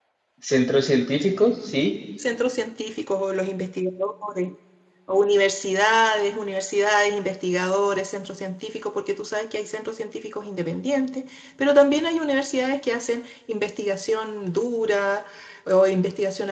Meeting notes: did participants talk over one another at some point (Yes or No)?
No